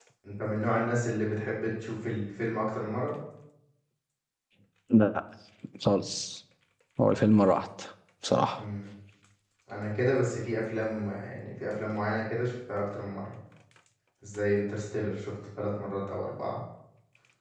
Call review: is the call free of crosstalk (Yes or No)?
Yes